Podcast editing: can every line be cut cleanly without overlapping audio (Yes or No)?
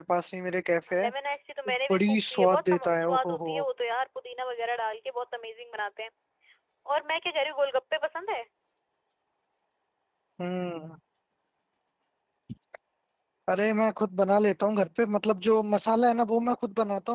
No